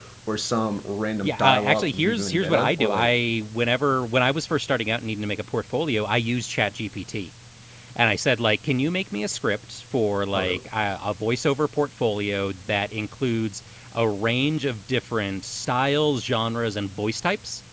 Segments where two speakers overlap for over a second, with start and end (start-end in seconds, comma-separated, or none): 1.2-3.1